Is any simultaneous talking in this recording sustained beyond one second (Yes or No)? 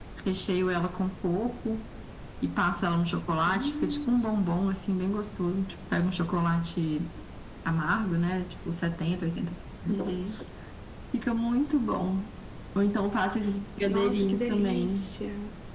Yes